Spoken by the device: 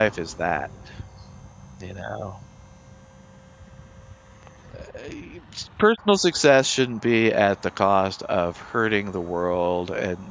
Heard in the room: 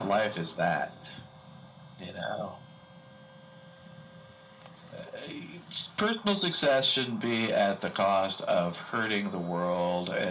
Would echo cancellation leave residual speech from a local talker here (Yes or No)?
No